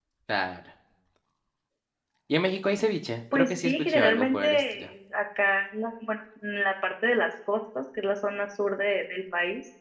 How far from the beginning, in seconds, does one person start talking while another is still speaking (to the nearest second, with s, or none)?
3 s